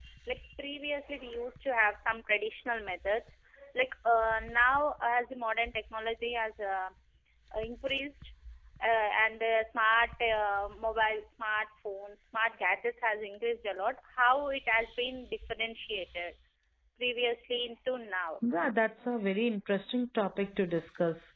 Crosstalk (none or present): none